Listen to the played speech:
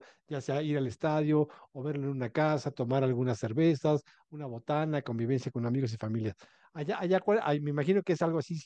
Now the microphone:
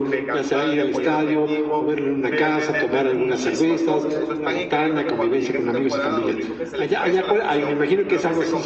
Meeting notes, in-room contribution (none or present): present